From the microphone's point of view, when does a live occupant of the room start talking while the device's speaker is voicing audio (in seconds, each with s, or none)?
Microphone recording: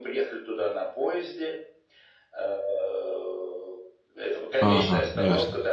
4.6 s